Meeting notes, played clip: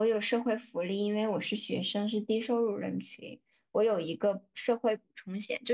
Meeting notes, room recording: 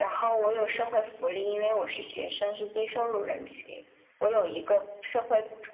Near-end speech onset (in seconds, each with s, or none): none